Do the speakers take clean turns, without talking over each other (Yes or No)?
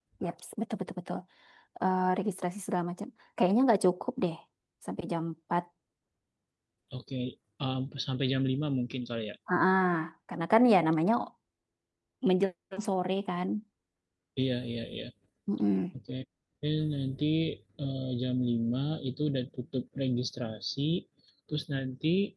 Yes